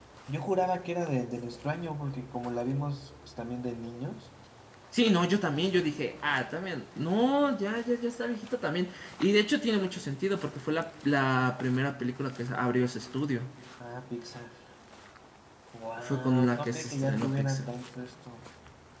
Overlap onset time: 16 s

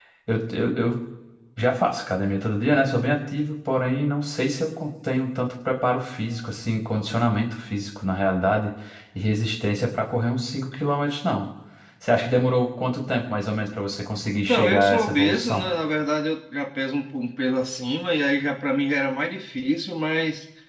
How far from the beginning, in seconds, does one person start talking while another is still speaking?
14 s

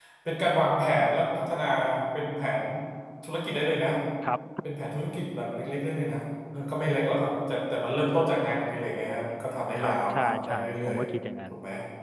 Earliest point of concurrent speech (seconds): 10 s

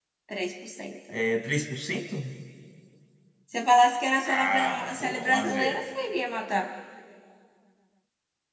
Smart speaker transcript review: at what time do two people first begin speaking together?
4 s

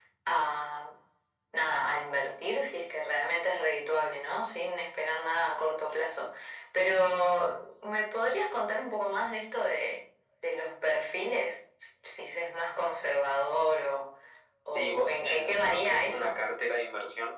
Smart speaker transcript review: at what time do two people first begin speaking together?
15 s

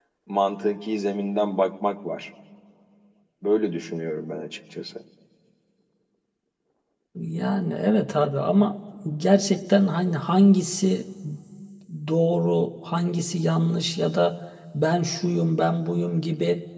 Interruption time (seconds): none

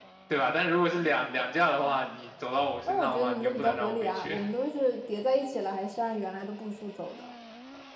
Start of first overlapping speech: 3 s

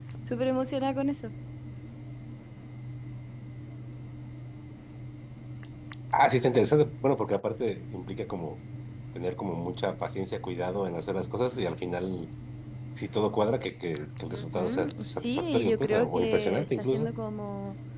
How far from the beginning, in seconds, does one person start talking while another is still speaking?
14 s

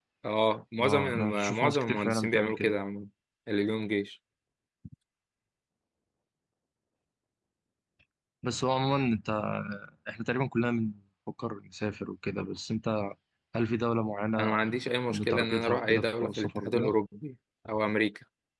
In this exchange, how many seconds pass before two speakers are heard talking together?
1 s

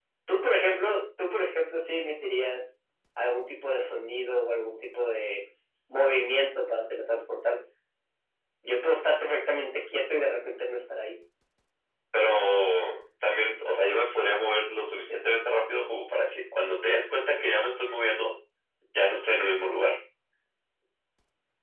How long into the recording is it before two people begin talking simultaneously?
none

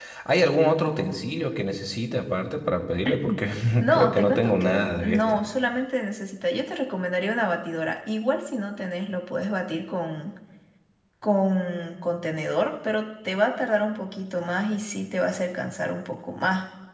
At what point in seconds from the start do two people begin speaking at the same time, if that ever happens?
4 s

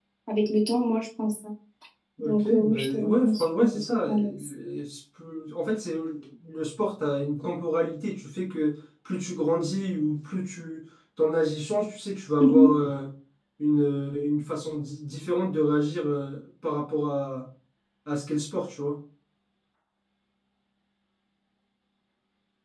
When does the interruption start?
2 s

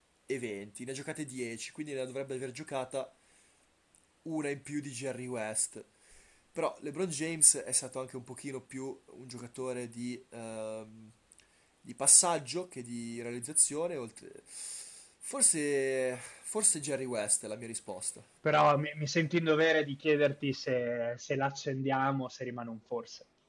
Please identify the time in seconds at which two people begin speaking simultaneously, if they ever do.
none

